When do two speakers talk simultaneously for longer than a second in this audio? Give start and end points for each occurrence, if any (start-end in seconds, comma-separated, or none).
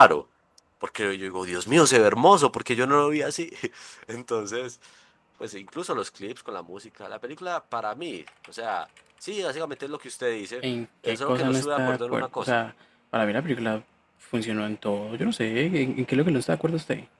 11.1-12.6